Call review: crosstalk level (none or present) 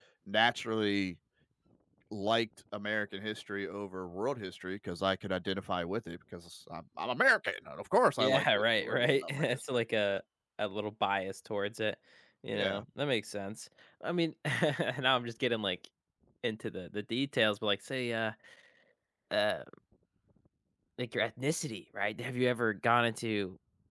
present